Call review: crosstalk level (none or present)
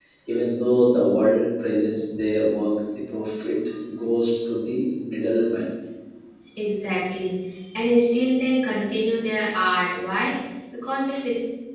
none